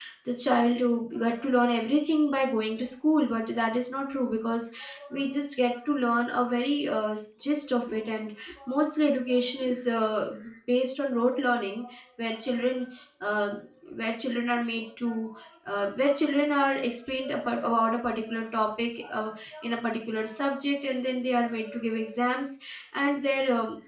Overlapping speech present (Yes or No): No